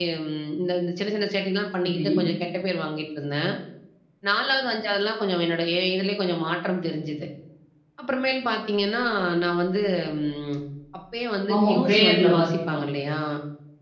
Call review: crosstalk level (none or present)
present